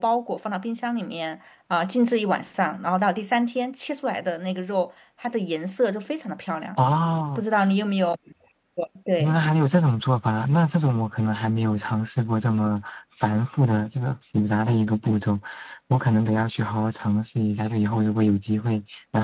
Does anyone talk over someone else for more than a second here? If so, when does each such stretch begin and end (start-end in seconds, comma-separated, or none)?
none